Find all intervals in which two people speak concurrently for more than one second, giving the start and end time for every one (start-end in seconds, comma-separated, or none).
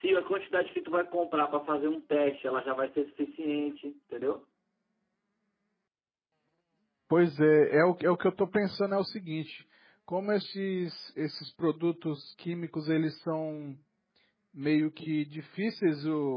none